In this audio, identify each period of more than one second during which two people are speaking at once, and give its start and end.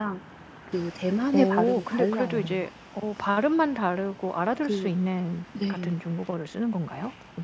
1.3-2.5

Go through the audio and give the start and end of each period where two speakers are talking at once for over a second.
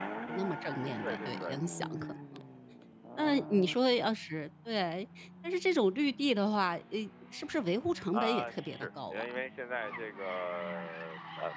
8.1-9.4

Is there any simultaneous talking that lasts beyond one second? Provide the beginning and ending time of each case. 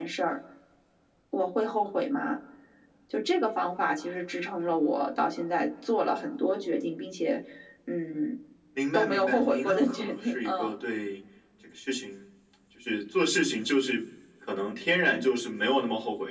8.9-10.7

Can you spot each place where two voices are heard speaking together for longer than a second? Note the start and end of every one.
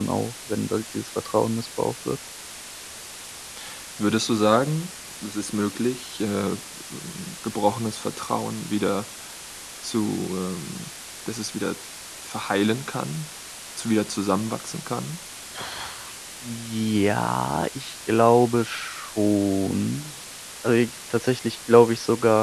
none

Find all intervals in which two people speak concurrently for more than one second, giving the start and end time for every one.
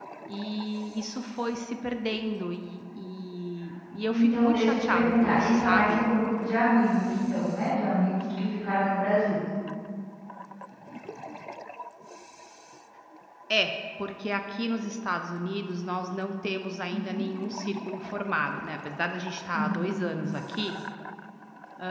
4.1-6.0

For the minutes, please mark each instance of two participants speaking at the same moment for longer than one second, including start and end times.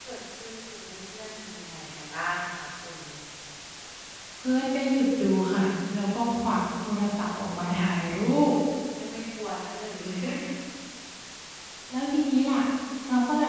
none

